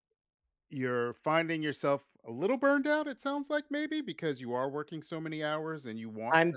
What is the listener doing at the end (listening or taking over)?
taking over